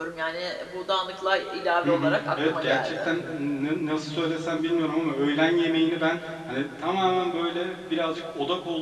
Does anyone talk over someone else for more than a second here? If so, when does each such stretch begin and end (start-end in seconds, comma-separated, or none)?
1.8-3.1